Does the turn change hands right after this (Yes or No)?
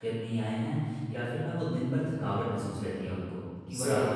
No